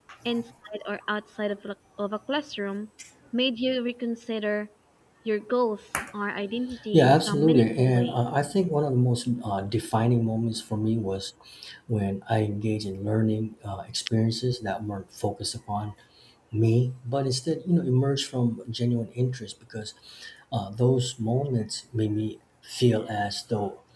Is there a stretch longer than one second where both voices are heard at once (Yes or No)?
Yes